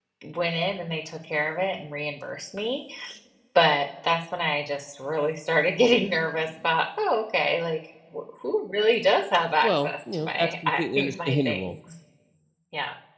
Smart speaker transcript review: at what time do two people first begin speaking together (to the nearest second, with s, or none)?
10 s